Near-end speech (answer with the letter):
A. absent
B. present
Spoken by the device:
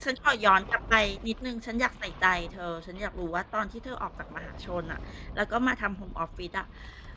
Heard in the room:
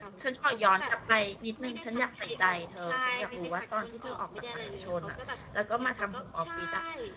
B